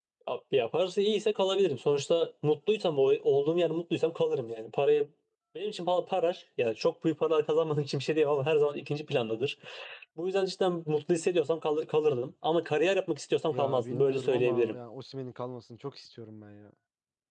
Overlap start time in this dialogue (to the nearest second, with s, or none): 14 s